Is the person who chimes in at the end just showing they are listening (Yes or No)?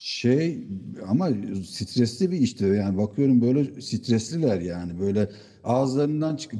Yes